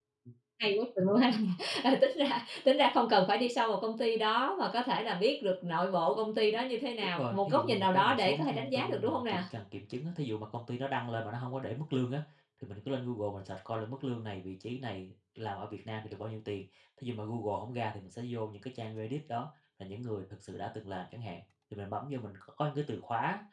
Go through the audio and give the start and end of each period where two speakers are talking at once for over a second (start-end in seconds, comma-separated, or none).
7.1-9.4